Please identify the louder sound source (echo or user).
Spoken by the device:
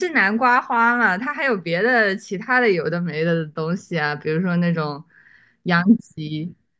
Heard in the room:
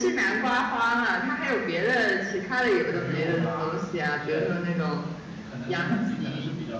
echo